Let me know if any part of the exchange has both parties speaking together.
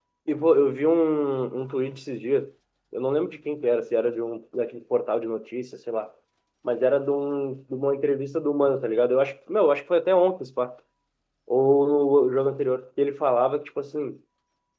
No

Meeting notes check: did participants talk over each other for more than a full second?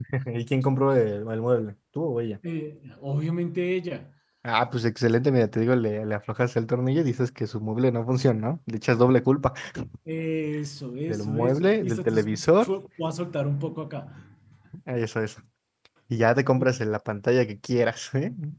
Yes, from 11.1 s

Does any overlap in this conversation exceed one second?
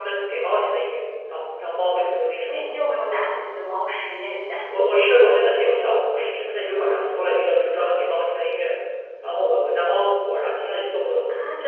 No

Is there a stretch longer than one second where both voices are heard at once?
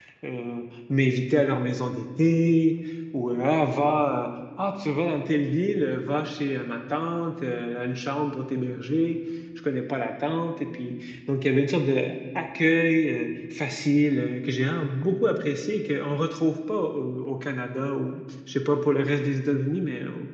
No

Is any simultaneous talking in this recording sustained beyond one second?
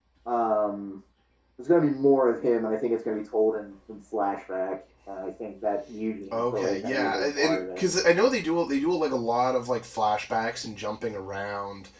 Yes, from 6.3 s

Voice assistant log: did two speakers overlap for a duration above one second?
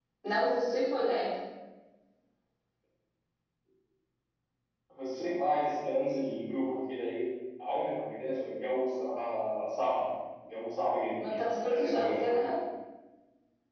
Yes, from 11.2 s

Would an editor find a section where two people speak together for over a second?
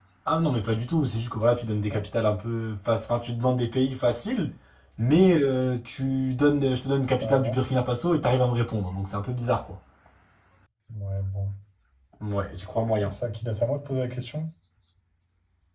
No

